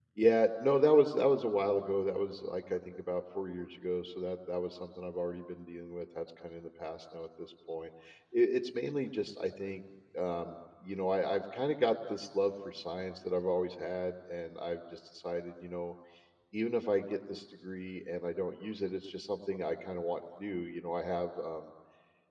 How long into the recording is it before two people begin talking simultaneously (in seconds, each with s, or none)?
none